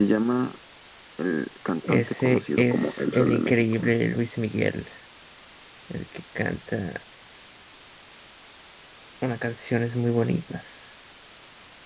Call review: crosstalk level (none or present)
present